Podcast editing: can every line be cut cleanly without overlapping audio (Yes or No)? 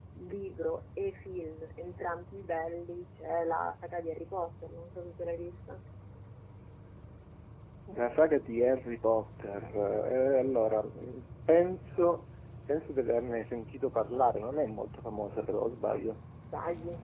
No